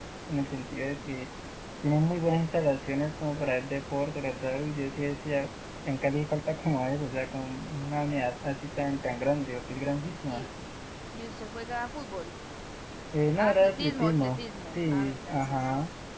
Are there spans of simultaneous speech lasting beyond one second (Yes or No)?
Yes